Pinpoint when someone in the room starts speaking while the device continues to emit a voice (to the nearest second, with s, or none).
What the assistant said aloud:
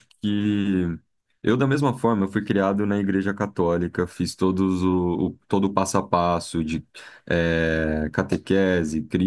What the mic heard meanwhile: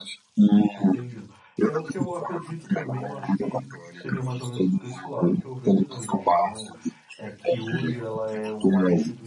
1 s